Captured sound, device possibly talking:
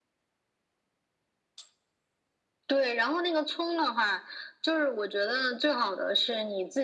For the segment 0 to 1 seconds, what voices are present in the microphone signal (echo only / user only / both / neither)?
neither